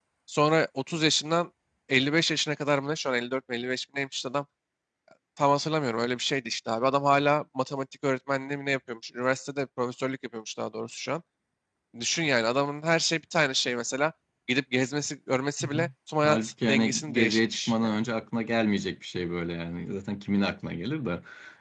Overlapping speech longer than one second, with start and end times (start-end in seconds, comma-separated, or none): 16.2-18.0